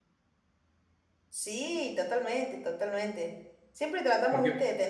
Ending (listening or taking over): listening